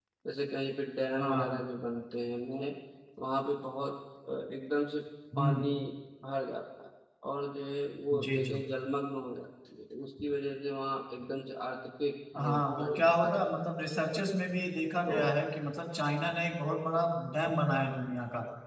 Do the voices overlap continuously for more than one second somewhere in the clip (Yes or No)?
Yes